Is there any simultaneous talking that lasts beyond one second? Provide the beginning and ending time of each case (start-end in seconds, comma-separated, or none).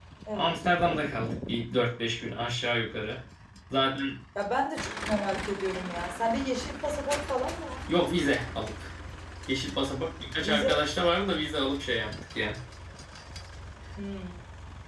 none